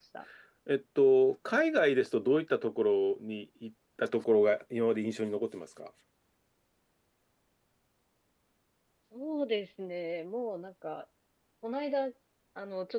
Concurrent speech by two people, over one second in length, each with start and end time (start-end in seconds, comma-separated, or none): none